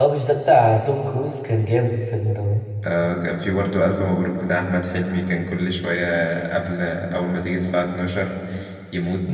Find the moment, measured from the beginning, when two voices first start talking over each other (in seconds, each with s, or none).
none